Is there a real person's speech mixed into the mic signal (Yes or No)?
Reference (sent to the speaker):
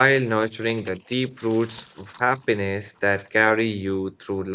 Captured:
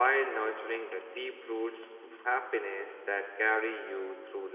No